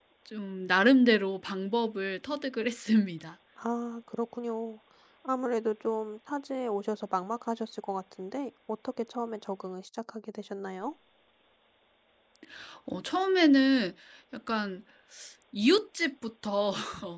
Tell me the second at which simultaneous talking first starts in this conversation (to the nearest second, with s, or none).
none